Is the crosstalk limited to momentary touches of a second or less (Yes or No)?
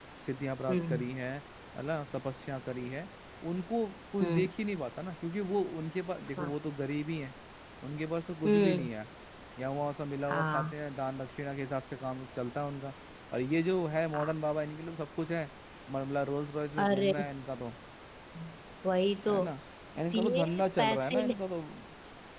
No